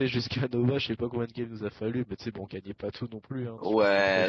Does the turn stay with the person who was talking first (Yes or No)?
No